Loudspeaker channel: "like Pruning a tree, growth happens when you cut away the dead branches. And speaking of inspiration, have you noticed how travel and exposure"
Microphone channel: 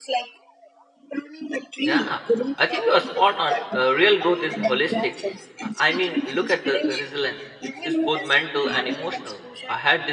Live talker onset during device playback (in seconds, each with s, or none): 1.8 s